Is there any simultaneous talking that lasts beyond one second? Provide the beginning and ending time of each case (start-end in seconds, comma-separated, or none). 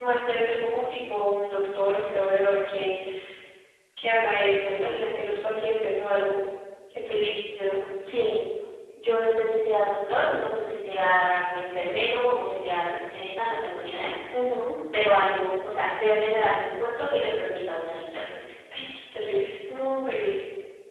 none